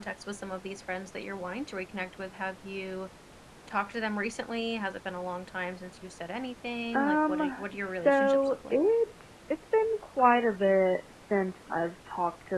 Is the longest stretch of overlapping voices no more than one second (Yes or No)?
No